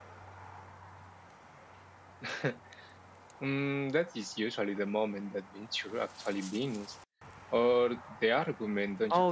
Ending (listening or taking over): taking over